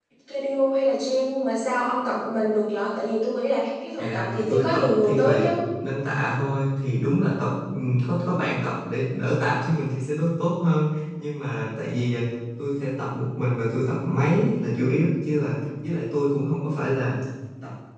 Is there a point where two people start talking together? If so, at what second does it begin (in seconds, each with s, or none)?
4.0 s